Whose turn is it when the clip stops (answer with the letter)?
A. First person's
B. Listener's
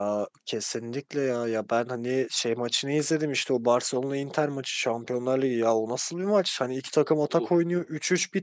A